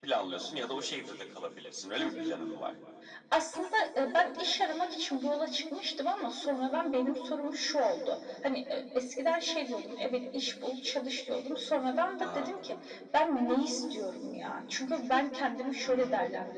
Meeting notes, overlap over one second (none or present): none